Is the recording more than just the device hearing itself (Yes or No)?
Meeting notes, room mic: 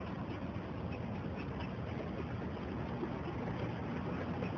No